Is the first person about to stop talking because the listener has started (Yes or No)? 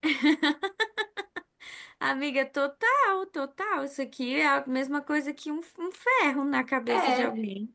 Yes